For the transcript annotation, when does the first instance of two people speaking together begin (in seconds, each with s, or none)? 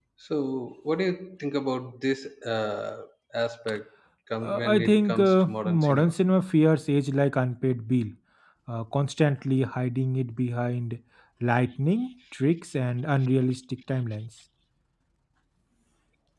4.4 s